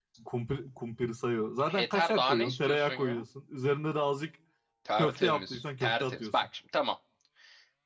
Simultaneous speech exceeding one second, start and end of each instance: 1.8-3.2, 5.0-6.3

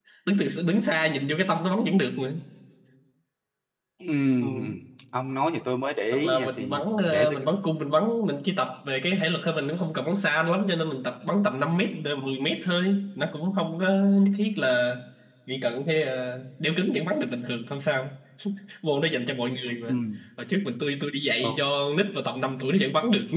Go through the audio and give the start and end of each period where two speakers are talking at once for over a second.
6.1-7.4

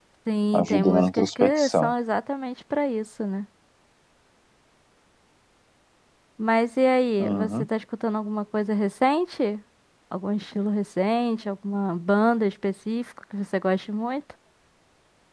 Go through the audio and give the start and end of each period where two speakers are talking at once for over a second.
0.5-1.9

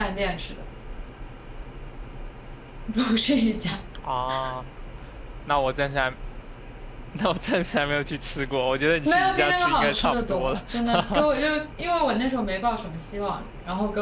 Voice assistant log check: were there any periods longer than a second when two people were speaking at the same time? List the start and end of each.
9.1-11.3

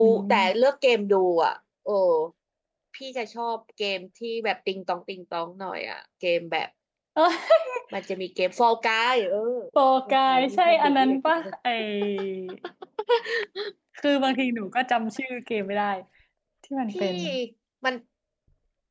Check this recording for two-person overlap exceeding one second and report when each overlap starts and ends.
10.1-11.5

